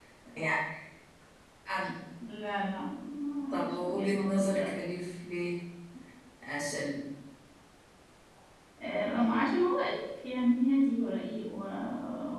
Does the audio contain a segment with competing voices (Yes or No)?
Yes